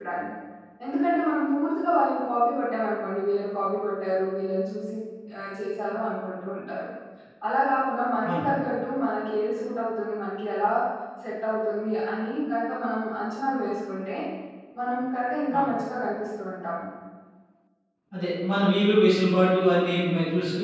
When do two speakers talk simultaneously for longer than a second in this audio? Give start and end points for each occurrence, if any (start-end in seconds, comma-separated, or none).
none